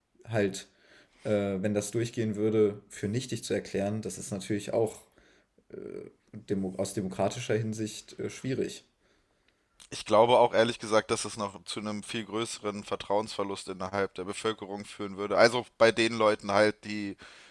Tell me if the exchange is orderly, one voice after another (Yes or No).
Yes